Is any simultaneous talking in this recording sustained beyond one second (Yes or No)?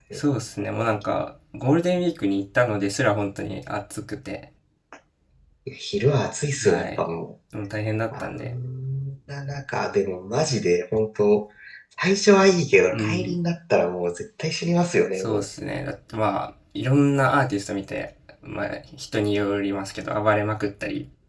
No